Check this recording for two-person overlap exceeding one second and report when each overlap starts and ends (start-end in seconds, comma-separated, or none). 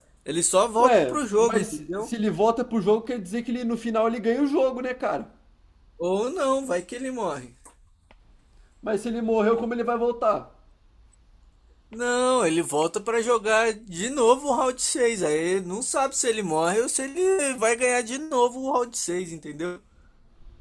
0.8-2.1